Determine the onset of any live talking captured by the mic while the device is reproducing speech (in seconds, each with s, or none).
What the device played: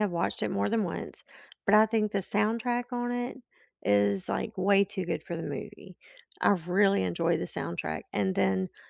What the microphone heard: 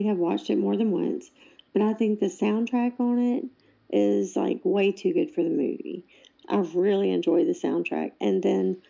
none